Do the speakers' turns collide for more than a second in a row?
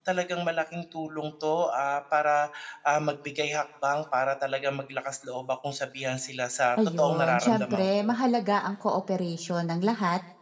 Yes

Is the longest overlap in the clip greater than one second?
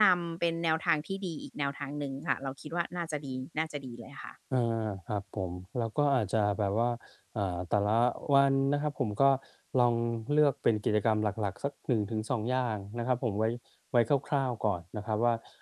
No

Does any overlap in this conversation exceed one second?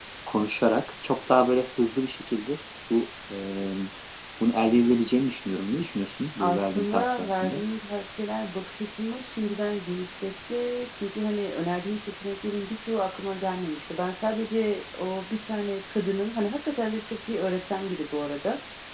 Yes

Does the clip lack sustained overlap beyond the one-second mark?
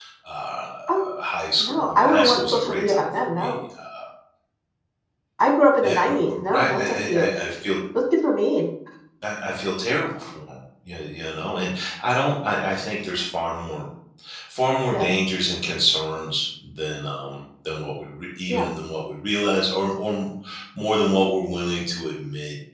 No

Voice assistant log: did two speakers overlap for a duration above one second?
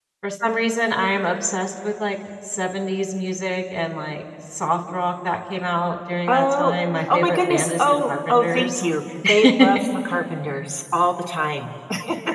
Yes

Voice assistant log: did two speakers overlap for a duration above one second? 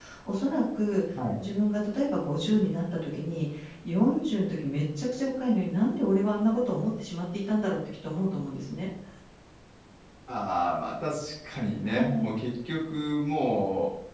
No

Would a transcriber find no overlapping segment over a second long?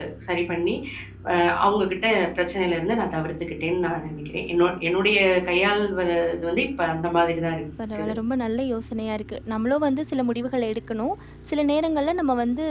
Yes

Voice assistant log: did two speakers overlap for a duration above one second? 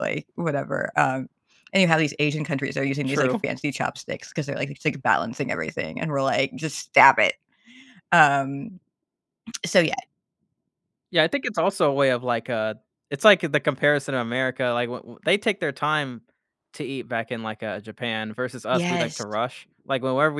No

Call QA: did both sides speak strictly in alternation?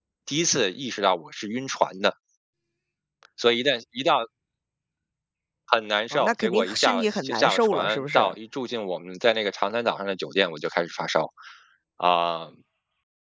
No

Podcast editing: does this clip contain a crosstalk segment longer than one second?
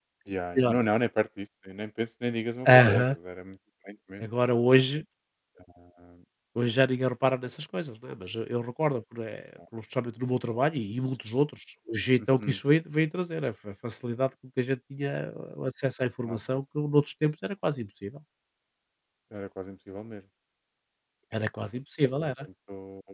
No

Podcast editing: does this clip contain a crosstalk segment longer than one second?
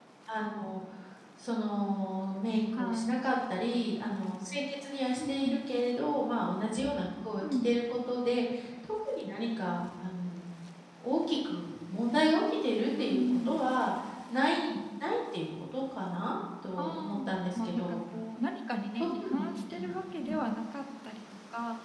Yes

